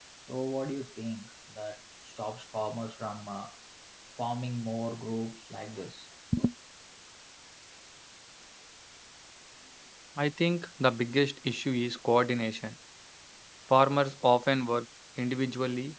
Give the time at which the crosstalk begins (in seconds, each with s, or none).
none